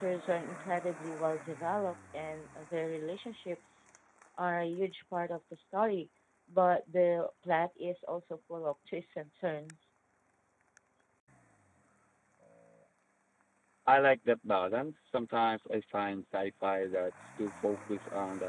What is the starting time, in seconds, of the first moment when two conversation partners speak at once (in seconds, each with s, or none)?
none